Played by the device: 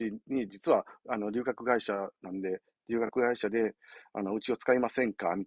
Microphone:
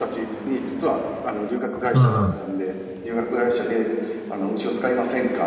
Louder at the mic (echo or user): user